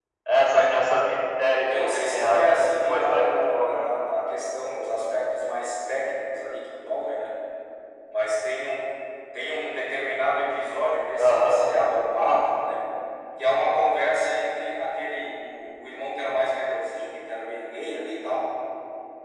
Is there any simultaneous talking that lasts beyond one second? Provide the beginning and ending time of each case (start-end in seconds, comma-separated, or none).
1.7-3.9